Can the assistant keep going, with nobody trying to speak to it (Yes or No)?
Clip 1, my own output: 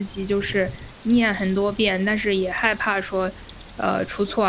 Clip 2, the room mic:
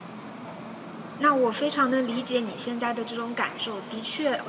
No